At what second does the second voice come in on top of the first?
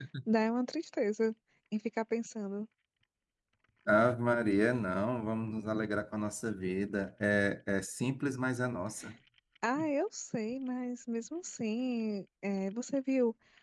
none

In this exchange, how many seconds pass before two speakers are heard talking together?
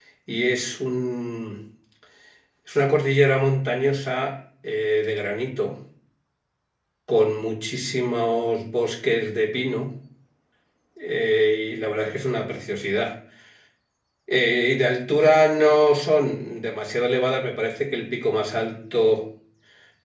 none

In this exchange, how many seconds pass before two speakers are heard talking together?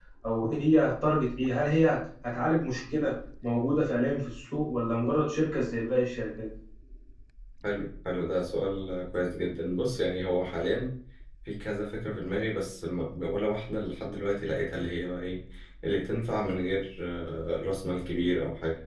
none

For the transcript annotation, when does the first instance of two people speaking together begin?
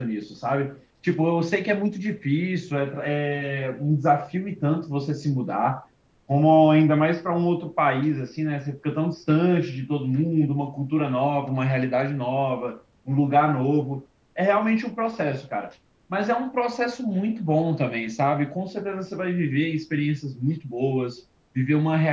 none

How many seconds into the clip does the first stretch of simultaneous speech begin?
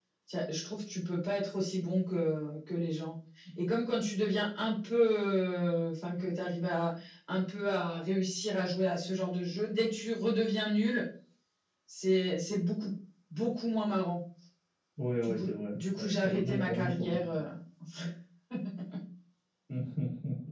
15.2 s

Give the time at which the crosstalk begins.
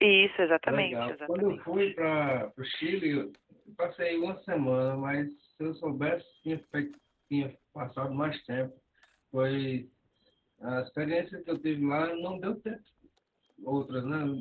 0.7 s

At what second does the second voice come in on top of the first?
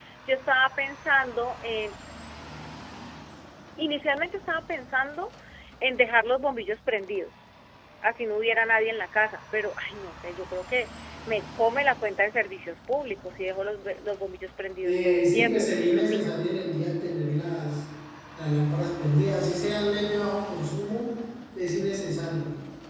14.8 s

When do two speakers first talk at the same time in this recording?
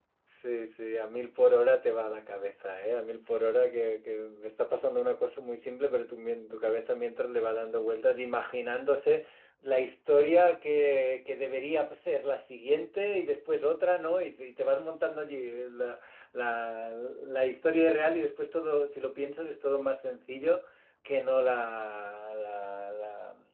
none

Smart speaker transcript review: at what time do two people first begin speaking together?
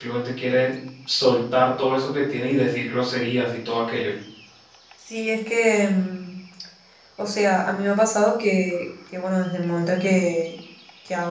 none

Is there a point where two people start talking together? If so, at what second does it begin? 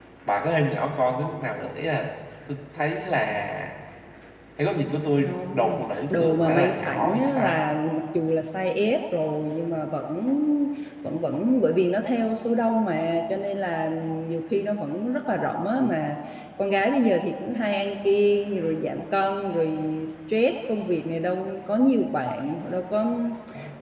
5.2 s

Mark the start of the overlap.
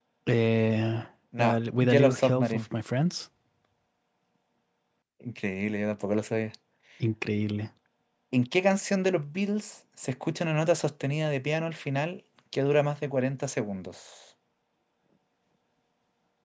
1.4 s

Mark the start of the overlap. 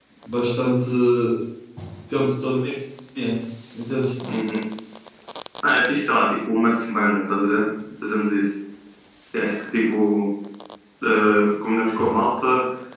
none

